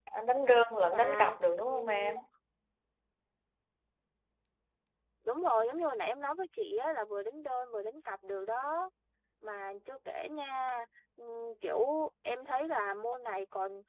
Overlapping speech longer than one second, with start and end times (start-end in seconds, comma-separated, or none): 0.9-2.1